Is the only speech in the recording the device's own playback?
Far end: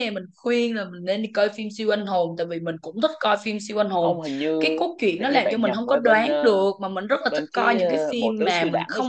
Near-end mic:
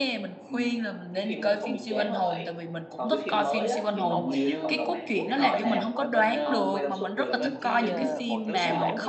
No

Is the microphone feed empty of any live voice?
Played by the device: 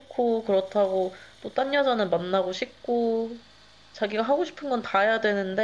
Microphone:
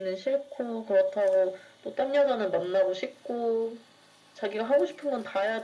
Yes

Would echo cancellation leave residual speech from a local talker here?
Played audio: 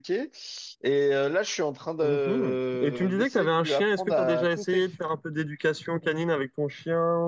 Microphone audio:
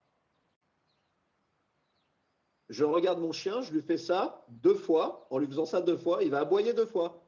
Yes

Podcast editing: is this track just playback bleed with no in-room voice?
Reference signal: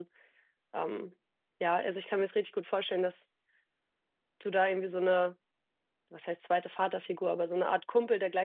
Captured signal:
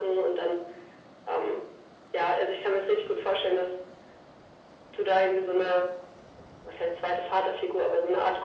Yes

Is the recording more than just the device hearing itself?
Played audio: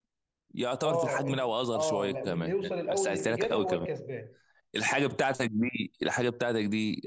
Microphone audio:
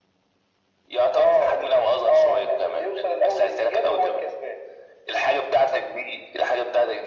No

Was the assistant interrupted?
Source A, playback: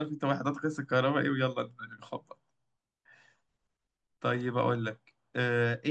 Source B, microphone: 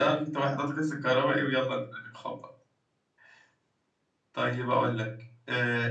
No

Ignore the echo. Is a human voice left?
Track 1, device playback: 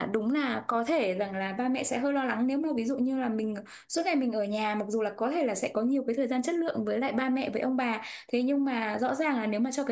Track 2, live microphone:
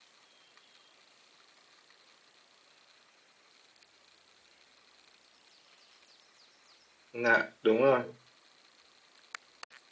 Yes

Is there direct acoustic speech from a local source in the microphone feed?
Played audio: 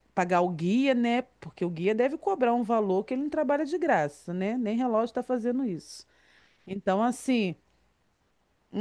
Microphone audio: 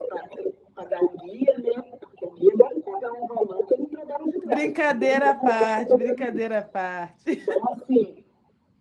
Yes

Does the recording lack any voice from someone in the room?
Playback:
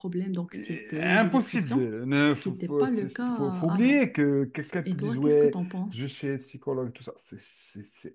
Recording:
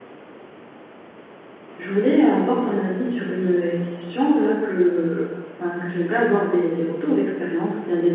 No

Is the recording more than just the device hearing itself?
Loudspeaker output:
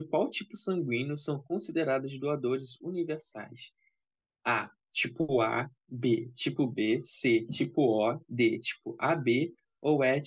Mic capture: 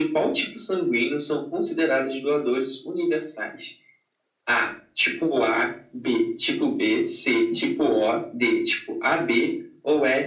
No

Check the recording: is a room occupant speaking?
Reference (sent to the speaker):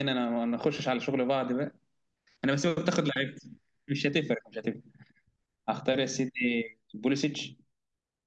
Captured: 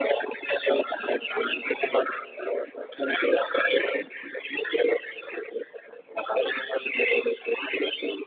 No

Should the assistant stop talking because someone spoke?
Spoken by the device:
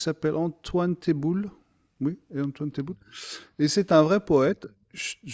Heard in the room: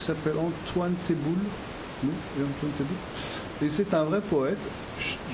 No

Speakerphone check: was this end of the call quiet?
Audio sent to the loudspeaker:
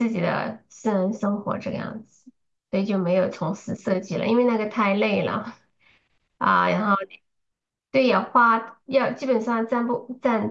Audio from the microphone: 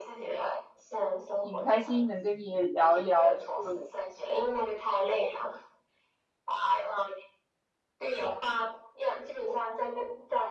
No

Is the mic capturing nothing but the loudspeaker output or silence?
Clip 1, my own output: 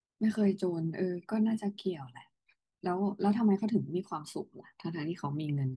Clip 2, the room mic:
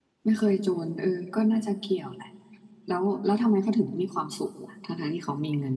Yes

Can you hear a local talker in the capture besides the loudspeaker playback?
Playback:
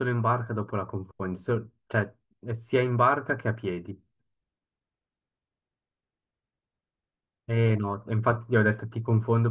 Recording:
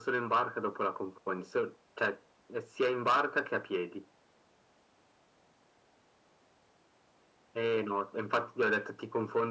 No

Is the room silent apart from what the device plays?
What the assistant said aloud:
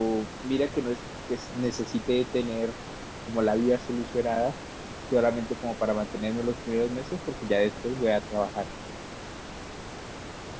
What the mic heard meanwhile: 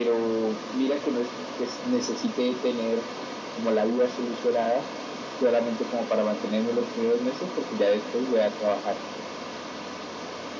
Yes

